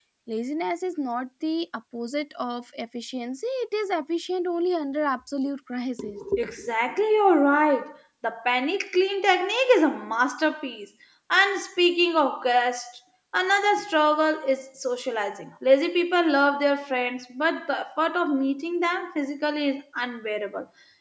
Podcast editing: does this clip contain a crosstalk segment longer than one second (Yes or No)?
No